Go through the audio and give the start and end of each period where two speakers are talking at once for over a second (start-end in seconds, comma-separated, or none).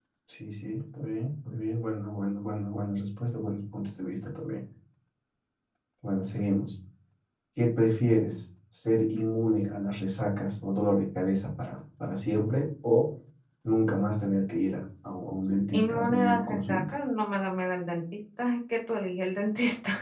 15.7-17.0